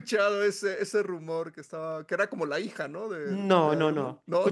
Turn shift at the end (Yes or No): Yes